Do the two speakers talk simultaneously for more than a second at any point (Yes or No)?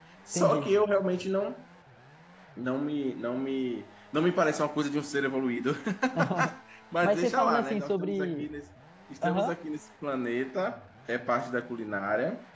Yes